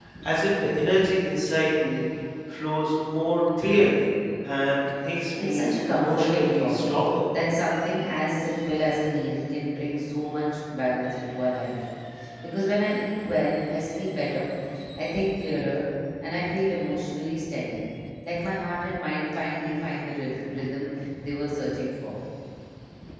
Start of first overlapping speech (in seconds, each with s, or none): 5.3 s